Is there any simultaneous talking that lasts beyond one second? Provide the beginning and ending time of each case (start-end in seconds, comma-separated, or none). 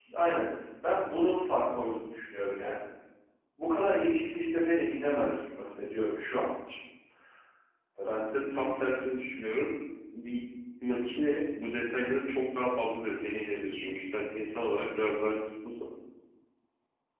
none